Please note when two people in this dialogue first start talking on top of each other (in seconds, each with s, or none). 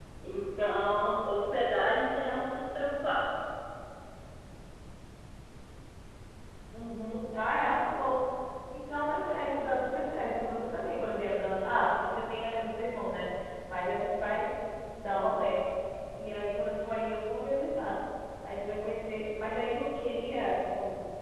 none